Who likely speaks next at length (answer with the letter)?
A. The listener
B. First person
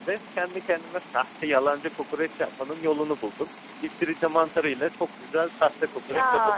A